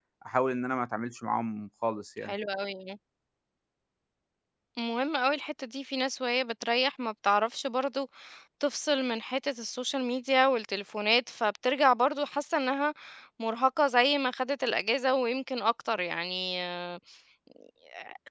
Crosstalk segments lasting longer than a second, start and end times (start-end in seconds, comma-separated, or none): none